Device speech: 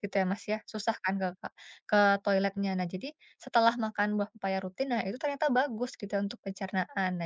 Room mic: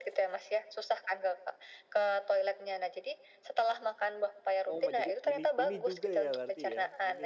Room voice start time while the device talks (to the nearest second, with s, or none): 5 s